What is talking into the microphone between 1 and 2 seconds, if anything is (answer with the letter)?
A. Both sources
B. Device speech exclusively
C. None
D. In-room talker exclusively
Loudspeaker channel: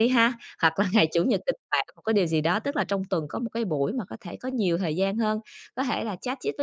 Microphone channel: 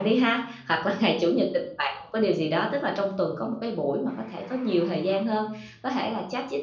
B